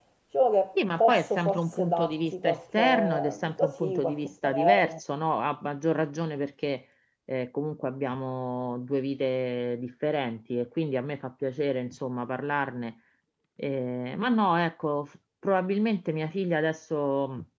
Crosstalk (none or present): present